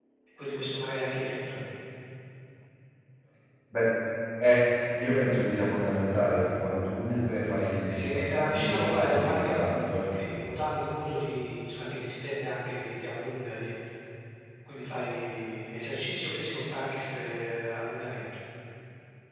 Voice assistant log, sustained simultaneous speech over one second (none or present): present